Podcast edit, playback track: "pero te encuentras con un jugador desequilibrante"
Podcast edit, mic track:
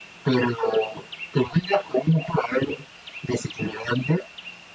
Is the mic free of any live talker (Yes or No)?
Yes